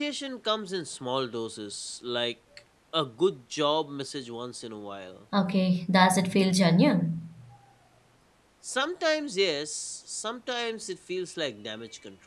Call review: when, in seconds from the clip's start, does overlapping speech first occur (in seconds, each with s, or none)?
none